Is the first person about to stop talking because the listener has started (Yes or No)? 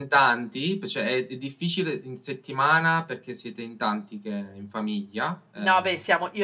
Yes